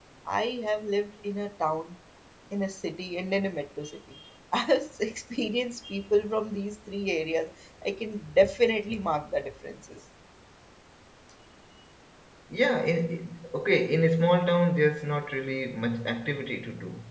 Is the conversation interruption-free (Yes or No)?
Yes